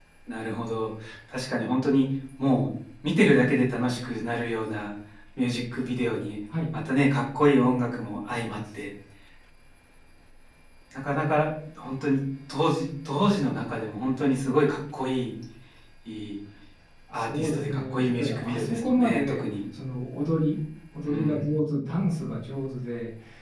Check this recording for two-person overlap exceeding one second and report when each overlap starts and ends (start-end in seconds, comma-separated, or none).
17.1-19.4